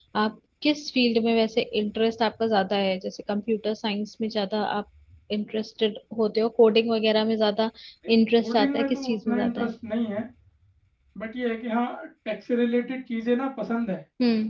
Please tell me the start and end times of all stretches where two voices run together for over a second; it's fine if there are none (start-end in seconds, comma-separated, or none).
8.4-9.7